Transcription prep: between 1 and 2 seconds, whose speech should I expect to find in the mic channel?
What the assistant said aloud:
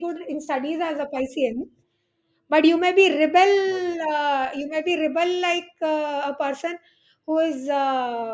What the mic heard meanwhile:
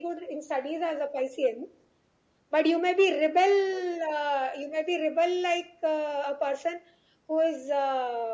echo only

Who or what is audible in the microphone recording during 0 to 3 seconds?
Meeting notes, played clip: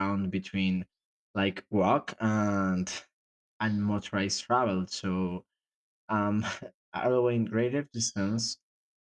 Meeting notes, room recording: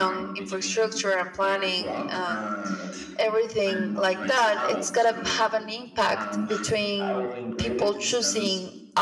both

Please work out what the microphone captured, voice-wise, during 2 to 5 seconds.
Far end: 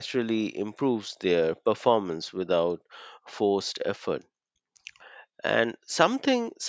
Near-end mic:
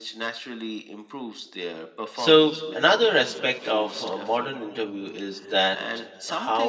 both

